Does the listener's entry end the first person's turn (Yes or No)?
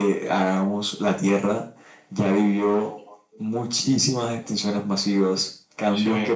No